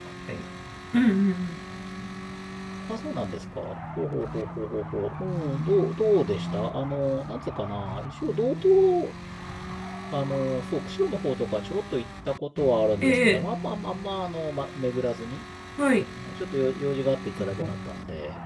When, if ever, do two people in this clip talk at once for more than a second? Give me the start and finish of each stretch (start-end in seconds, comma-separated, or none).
none